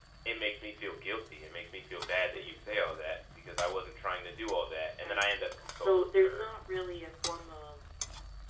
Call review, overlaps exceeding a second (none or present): present